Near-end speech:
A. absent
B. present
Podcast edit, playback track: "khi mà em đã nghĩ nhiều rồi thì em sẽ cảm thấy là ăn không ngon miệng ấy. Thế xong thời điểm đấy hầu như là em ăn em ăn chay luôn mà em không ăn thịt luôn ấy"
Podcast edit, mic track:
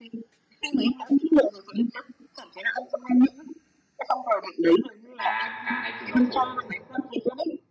B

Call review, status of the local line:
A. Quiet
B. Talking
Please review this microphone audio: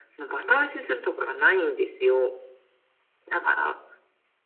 A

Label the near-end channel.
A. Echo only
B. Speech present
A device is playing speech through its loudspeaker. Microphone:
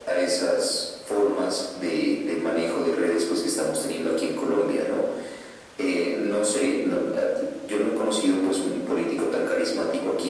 A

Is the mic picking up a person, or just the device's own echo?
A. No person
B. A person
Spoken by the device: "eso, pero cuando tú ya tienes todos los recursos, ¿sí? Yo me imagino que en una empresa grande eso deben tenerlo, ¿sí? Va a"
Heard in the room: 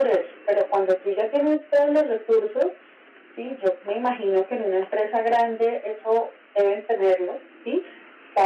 A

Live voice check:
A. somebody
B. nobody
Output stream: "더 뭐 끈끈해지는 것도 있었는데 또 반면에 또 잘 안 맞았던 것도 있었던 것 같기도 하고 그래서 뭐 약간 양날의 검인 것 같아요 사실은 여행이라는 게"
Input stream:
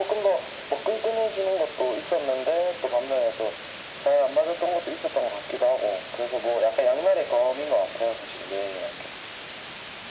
B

